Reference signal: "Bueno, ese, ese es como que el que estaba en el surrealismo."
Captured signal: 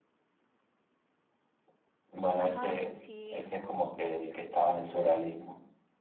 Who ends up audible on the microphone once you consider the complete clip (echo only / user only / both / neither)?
both